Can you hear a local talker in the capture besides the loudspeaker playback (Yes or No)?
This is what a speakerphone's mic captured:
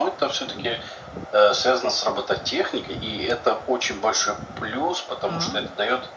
Yes